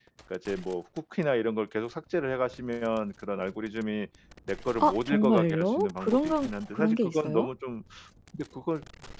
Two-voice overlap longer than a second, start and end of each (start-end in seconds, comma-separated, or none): 4.8-7.5